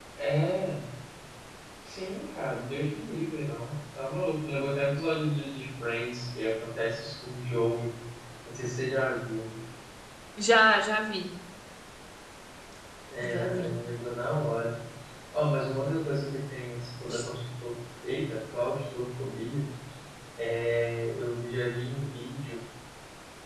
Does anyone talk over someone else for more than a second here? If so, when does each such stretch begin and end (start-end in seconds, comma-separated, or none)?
none